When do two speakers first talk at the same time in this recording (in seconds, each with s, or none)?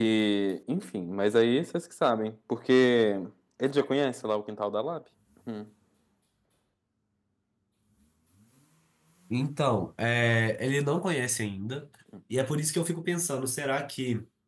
none